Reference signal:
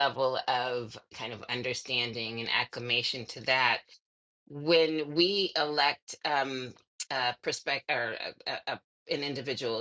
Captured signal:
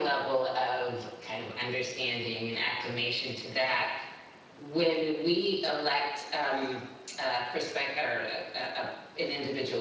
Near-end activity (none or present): none